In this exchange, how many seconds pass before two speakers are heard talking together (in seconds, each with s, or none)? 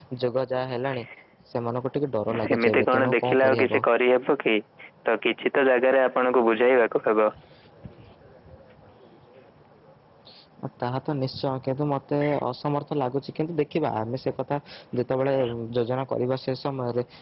2.4 s